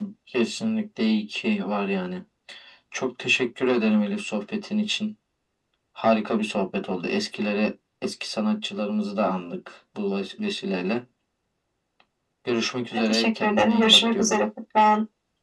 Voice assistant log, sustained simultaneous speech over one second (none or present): present